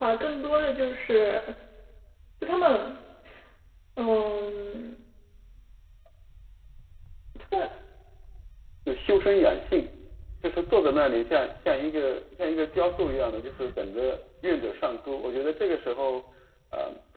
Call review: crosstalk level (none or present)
none